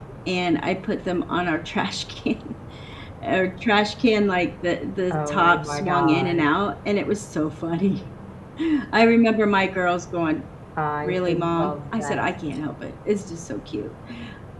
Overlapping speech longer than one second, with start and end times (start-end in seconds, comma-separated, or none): 5.1-6.4, 11.0-12.3